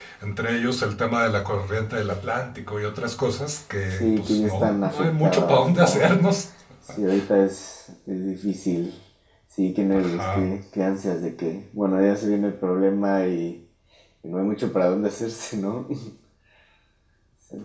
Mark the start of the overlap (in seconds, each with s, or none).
3.9 s